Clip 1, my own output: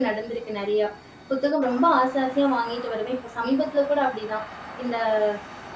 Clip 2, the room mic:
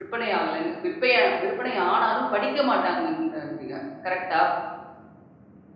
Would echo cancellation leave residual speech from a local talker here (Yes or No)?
Yes